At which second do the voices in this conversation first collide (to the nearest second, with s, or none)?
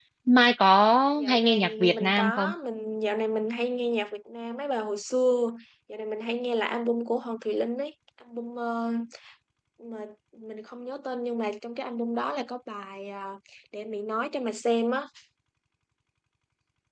1 s